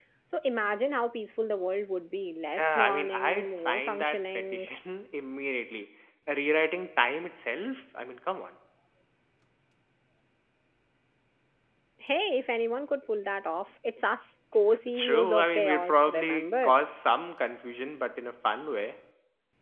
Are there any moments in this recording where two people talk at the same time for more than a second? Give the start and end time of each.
2.6-4.7, 14.9-16.8

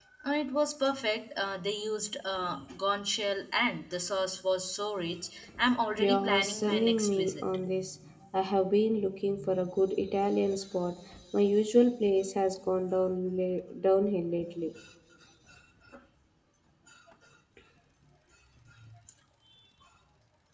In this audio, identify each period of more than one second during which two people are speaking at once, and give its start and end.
6.0-7.3

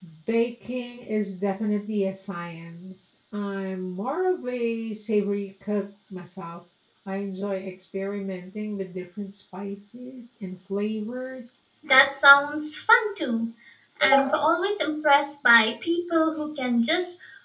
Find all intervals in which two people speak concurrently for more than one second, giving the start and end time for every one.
none

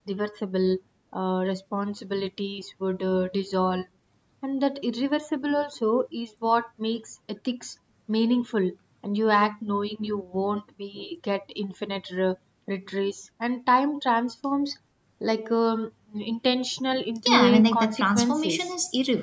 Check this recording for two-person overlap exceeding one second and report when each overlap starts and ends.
17.3-18.7

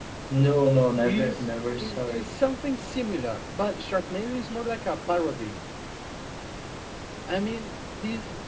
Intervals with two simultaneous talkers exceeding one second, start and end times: 1.0-2.3

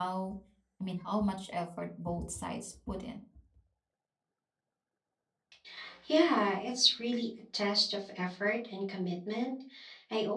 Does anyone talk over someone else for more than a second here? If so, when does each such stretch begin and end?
none

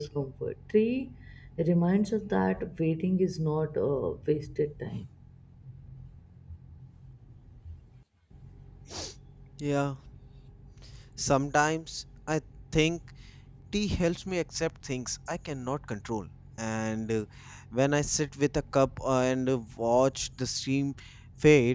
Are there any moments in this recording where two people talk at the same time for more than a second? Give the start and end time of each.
none

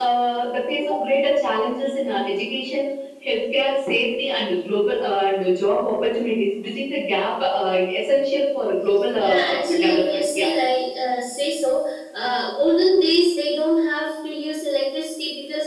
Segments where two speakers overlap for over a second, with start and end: 9.2-10.5

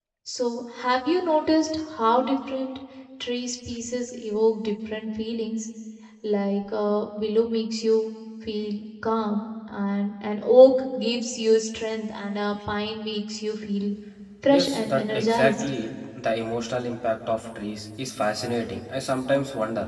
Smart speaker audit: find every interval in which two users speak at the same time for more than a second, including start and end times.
14.5-15.7

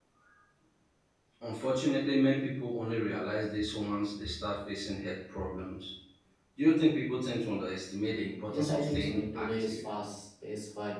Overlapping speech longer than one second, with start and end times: 8.5-9.8

